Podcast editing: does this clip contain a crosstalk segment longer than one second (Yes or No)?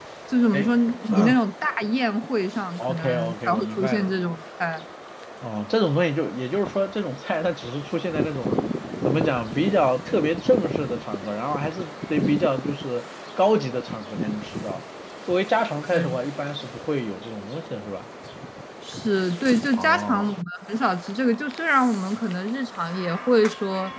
Yes